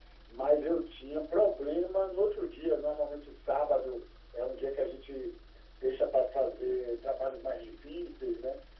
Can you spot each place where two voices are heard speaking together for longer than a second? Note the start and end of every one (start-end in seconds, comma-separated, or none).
none